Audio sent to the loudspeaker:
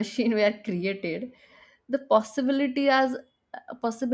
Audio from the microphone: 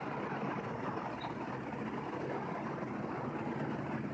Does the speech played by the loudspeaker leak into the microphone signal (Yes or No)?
No